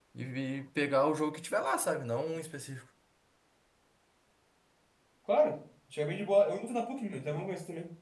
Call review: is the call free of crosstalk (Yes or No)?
Yes